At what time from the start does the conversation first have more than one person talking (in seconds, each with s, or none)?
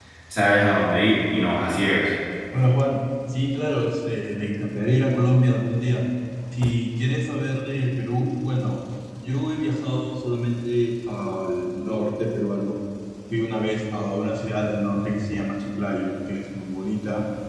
none